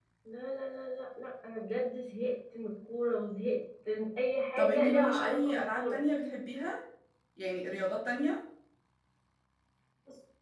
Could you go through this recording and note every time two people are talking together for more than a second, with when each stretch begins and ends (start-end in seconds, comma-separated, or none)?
4.6-6.0